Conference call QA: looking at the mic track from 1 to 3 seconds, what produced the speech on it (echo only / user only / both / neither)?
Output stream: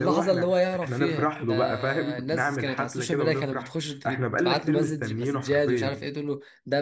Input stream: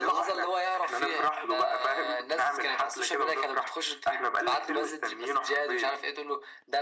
echo only